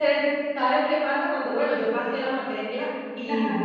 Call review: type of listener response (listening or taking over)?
listening